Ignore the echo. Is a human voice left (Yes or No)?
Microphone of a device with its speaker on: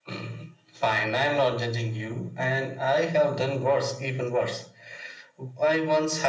No